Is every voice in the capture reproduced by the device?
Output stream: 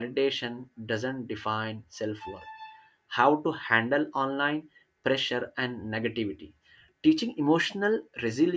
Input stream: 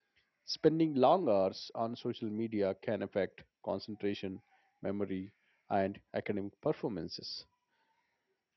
No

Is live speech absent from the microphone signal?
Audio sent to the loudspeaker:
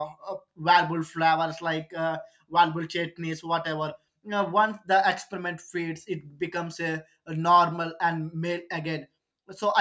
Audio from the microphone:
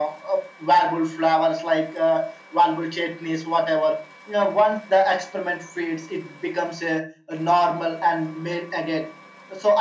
Yes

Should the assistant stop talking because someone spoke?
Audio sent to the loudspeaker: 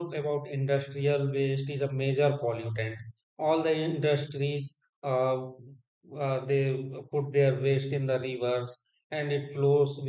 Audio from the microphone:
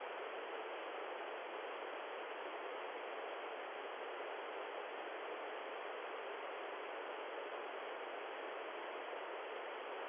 No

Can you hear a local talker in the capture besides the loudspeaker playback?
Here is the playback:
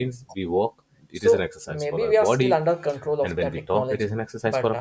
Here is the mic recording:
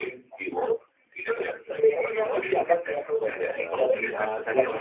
Yes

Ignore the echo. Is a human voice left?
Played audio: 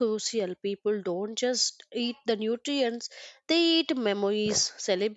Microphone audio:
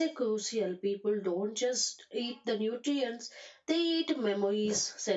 No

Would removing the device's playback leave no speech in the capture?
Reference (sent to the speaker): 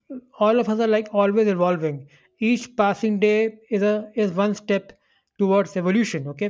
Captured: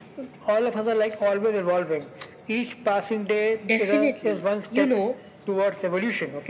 No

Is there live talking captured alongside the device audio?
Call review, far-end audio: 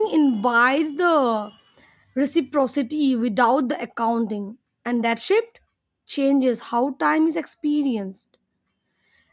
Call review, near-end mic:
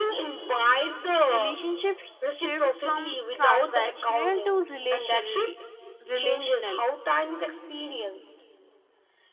Yes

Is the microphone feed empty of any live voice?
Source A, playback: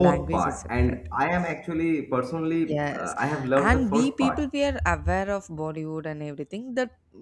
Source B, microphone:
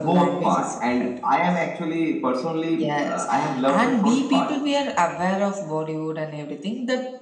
Yes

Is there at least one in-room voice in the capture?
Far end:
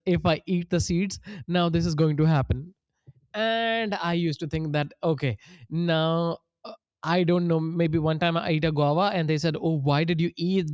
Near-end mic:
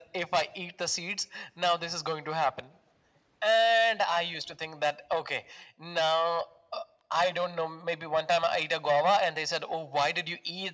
No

